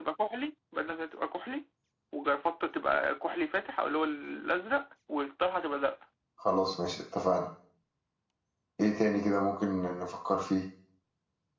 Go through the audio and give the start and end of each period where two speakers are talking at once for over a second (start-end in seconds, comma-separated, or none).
none